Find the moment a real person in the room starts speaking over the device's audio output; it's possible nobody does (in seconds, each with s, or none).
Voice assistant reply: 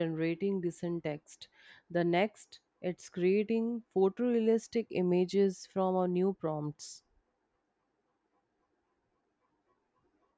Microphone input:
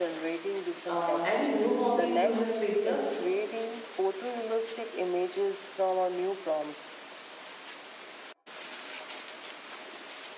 0.8 s